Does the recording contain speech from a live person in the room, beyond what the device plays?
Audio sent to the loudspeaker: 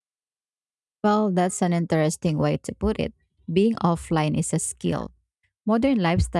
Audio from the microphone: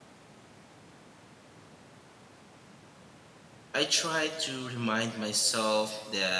Yes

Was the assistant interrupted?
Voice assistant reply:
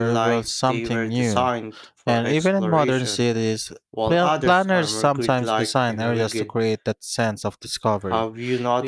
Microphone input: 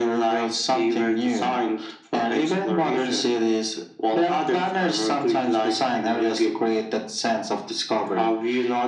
No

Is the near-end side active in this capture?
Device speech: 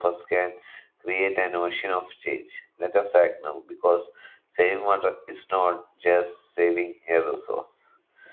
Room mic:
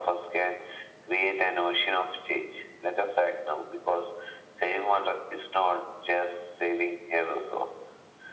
No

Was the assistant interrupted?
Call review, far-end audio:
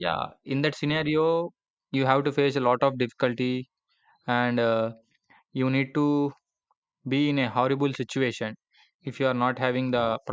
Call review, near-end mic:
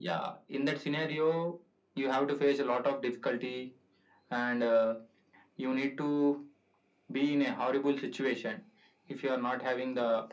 No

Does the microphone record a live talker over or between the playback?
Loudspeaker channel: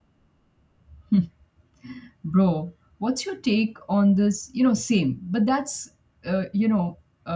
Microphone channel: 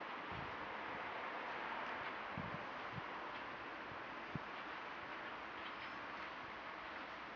No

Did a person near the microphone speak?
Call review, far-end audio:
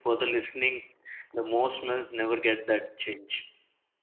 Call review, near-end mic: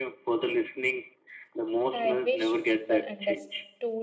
Yes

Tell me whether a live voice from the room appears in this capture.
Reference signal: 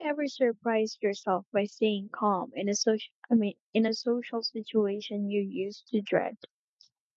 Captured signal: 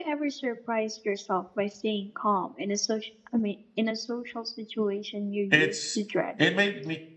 Yes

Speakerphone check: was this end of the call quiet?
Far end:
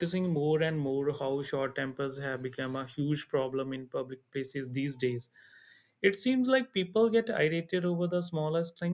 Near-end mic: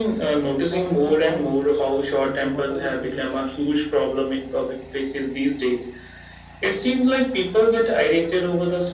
No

